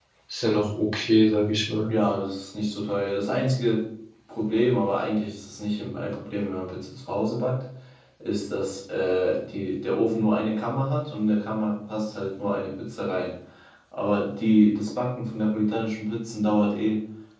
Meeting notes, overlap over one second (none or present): none